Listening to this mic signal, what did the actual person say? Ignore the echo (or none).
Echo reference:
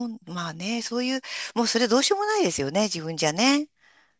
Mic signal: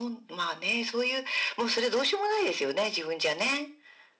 none